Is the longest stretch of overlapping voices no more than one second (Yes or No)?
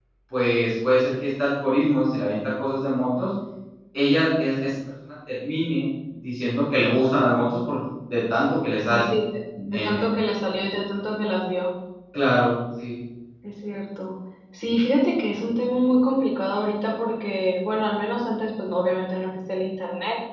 Yes